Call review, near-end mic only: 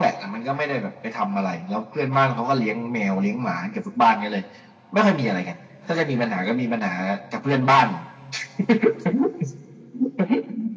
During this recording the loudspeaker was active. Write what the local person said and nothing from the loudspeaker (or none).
none